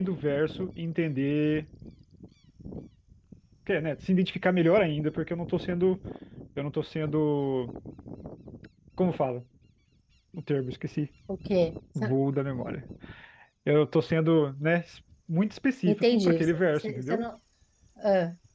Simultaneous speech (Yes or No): Yes